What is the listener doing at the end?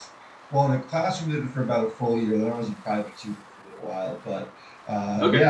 listening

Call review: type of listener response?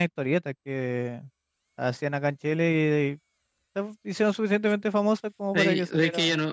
taking over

